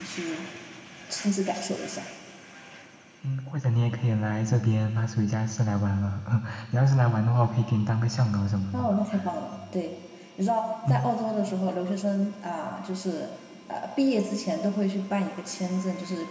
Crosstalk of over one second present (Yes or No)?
No